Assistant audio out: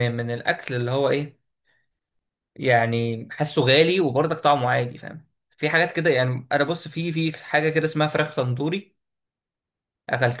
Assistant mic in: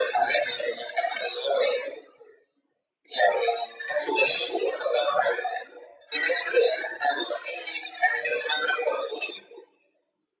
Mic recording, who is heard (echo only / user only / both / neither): echo only